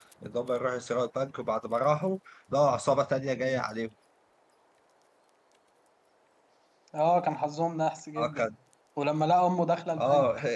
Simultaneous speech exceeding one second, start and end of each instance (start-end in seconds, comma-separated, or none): none